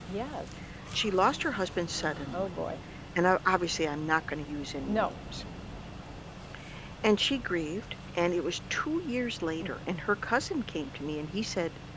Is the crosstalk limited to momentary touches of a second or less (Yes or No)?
Yes